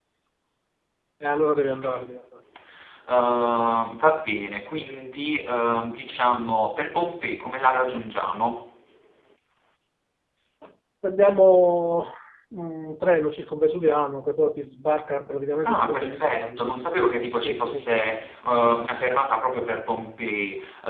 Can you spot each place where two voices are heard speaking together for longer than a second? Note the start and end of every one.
15.6-17.0, 17.4-18.8

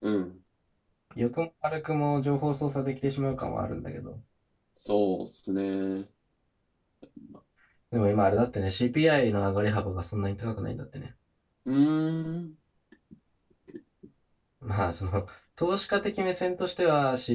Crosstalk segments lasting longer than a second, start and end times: none

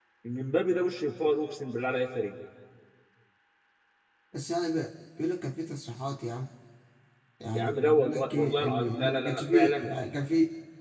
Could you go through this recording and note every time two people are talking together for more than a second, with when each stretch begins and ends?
7.5-9.9

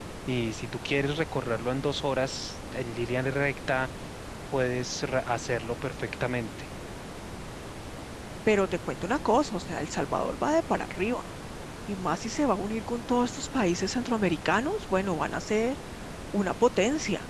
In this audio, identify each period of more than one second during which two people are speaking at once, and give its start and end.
none

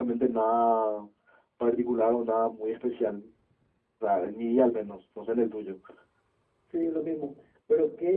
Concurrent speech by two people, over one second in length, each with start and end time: none

